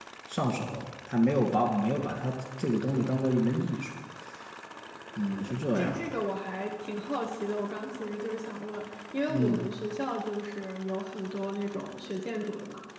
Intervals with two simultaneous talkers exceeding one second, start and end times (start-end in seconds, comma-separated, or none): none